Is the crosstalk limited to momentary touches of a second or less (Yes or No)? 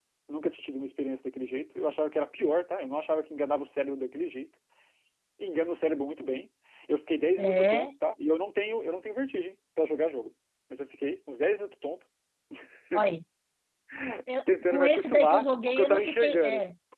No